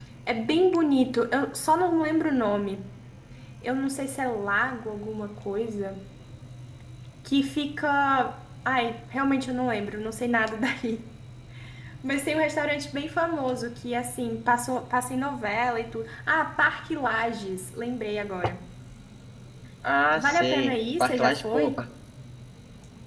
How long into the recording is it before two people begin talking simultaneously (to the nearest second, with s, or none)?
20 s